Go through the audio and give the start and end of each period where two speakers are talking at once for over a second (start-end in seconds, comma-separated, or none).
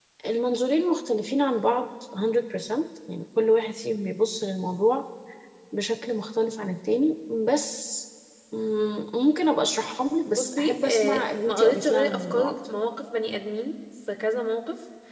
10.4-12.6